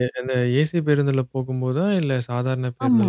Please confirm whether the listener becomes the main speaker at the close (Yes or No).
Yes